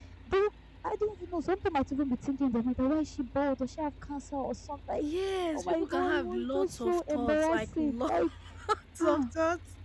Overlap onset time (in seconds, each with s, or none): 5.5 s